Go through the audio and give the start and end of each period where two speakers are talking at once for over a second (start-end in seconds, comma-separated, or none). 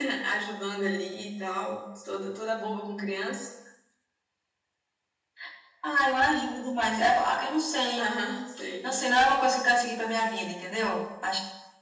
none